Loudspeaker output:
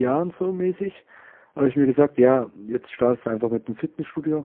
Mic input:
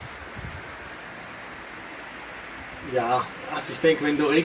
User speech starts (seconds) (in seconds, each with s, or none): 2.8 s